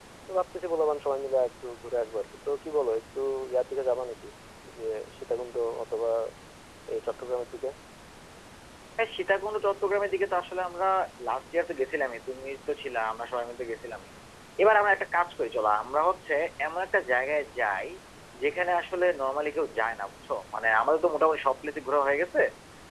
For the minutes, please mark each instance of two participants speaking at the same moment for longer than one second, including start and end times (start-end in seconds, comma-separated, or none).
none